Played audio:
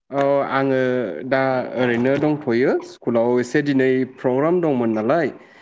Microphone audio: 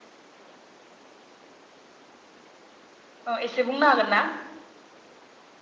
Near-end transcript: औ एसे बुंनो हागोन ना?

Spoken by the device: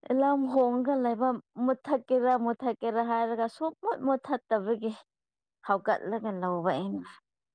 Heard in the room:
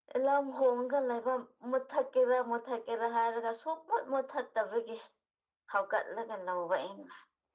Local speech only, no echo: none

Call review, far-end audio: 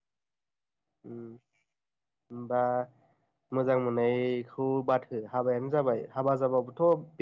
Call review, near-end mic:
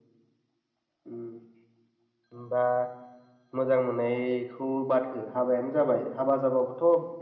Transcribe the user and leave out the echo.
none

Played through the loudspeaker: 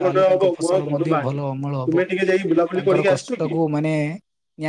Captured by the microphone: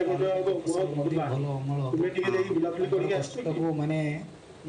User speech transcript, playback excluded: ହଁ

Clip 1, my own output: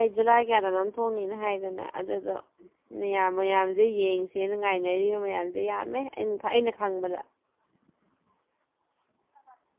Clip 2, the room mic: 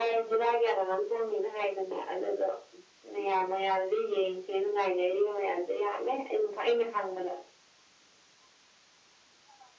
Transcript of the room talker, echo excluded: none

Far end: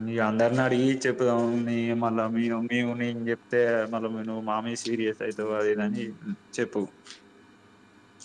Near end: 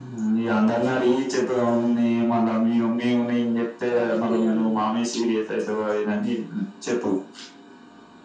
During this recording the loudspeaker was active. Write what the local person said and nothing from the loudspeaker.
చాలా గట్టిగేయలనిగా

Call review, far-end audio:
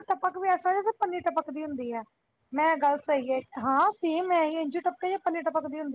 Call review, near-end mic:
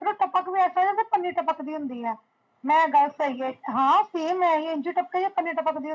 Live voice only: none

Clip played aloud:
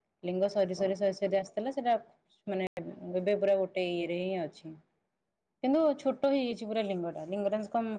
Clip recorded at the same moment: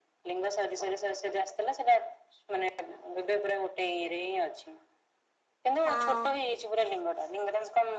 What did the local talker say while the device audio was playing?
ହଁ

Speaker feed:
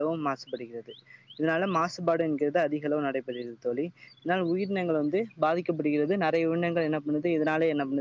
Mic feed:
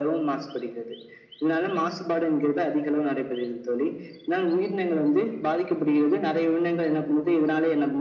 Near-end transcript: none

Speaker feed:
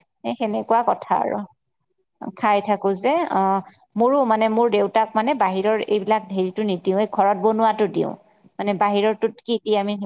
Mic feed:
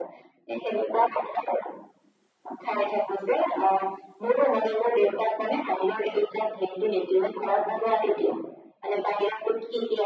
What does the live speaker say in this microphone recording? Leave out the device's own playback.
none

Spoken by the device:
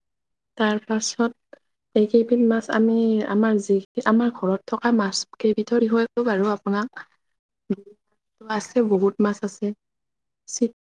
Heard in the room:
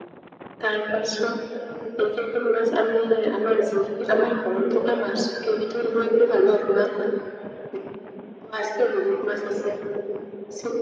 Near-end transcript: none

